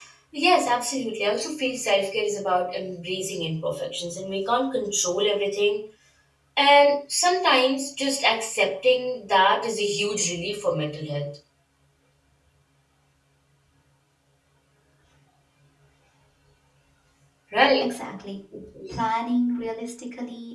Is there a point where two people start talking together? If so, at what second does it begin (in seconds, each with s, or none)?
none